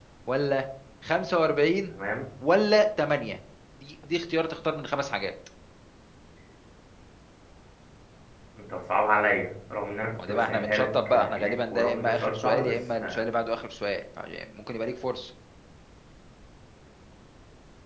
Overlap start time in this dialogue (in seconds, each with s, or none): 10.2 s